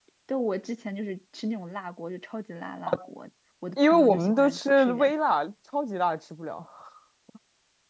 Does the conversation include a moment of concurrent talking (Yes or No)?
Yes